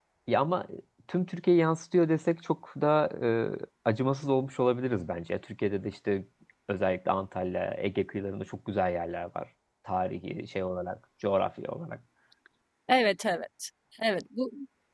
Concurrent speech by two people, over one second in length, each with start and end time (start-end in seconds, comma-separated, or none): none